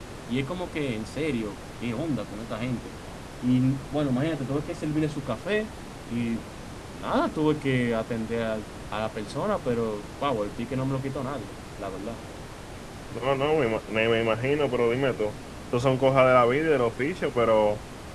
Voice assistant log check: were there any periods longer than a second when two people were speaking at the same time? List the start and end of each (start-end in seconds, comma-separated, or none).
none